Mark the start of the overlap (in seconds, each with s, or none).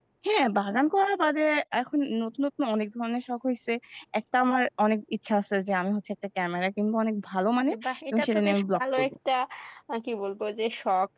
7.6 s